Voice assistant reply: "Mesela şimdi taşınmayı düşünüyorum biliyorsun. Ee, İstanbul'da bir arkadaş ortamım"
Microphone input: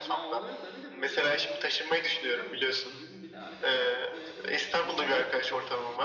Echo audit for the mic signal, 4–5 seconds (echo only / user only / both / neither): both